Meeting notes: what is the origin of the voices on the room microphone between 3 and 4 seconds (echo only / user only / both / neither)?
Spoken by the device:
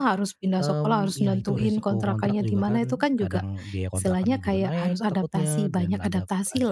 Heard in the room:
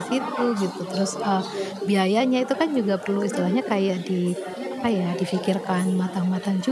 both